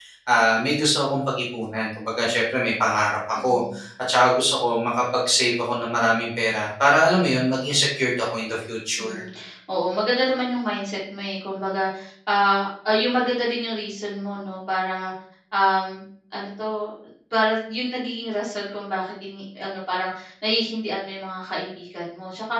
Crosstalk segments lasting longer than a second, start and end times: none

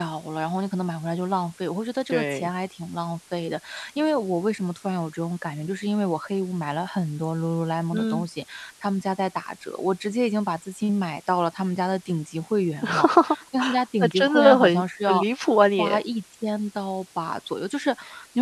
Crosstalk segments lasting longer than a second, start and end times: 14.0-15.2

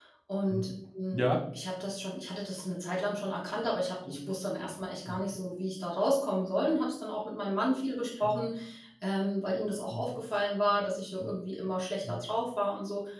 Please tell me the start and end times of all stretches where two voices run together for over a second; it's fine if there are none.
none

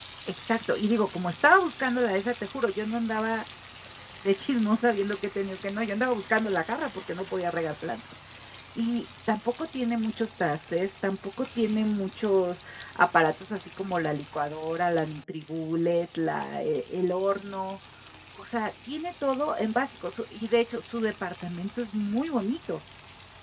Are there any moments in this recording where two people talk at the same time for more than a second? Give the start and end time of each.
none

